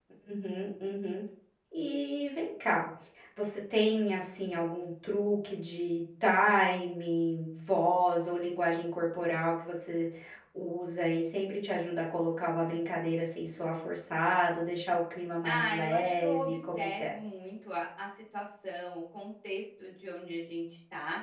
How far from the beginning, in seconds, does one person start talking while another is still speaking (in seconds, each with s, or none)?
15.4 s